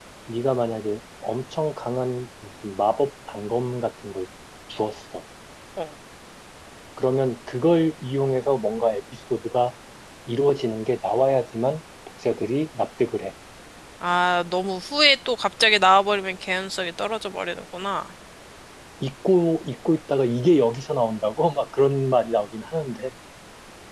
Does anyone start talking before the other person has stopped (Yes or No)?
No